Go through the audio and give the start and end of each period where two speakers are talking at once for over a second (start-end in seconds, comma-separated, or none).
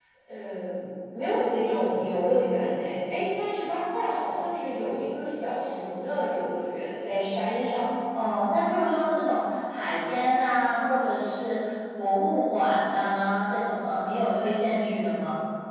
none